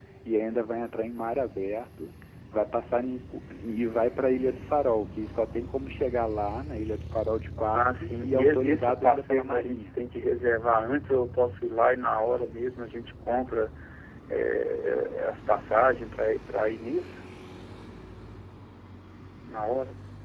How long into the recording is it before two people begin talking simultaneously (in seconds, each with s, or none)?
7.7 s